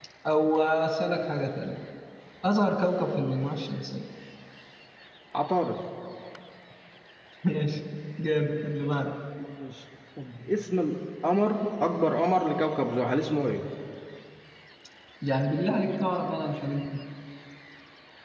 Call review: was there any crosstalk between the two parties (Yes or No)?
No